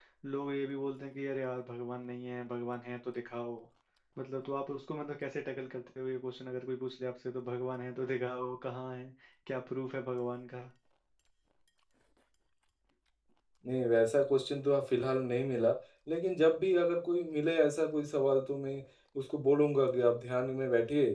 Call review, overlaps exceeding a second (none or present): none